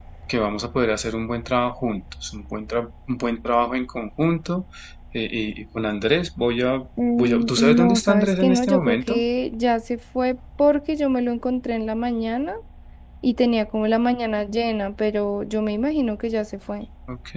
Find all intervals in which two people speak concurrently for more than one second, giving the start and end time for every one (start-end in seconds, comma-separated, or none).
7.2-9.2